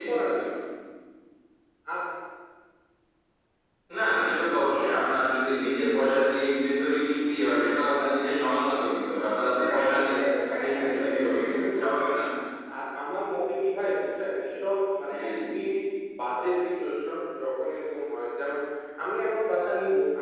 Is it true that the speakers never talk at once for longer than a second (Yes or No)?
No